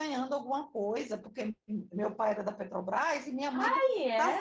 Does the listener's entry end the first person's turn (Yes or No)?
No